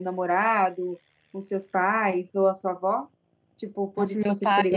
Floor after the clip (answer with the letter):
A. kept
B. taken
B